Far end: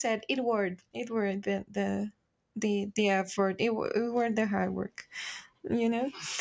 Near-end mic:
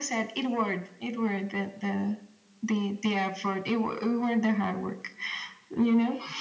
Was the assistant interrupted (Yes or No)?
No